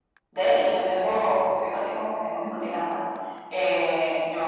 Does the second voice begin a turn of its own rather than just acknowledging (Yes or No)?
No